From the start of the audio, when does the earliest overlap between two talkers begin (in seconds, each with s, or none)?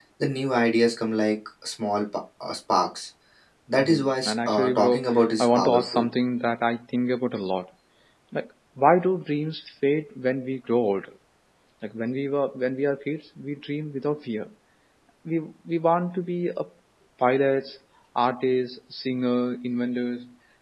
3.8 s